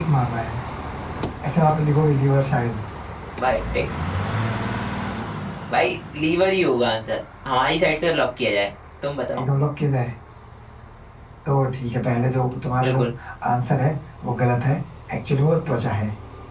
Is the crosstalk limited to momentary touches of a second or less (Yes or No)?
Yes